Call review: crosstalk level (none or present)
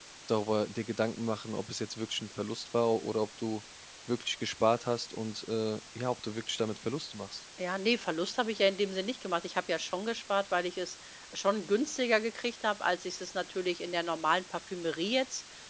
none